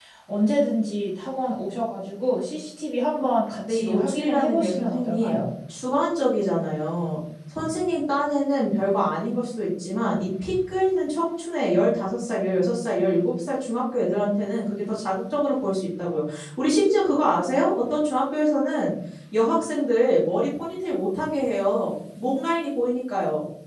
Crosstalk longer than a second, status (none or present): present